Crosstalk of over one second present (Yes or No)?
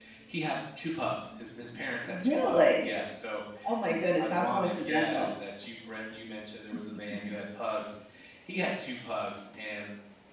Yes